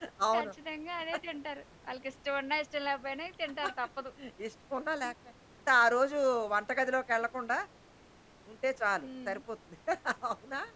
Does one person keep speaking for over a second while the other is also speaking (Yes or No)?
No